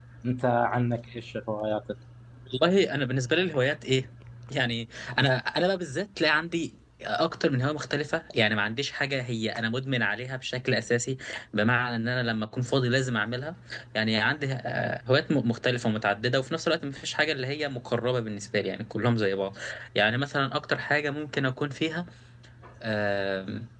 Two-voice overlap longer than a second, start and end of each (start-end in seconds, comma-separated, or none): none